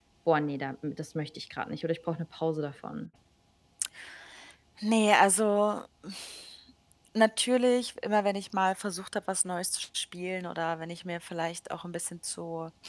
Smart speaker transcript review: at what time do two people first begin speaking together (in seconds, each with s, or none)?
none